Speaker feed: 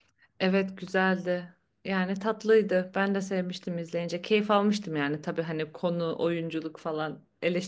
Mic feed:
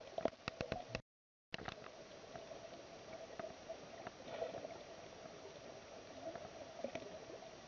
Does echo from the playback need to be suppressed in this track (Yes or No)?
No